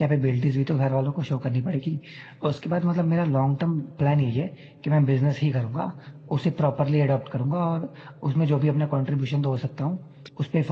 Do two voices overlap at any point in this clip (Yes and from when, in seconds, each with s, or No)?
No